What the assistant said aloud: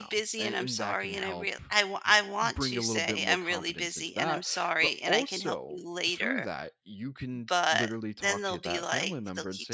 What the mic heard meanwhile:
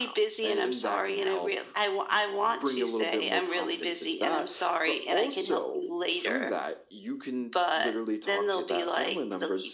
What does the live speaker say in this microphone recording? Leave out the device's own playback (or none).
none